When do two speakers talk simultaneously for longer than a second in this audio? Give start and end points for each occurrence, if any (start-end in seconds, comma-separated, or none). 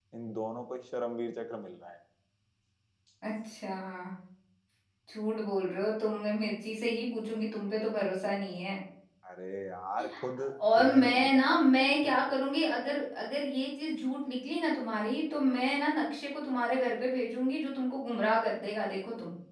10.8-12.2